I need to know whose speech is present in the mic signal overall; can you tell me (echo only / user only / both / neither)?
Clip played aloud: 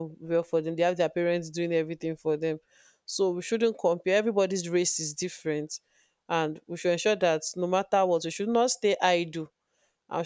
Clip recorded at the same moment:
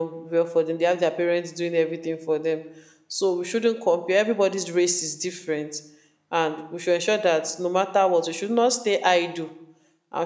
echo only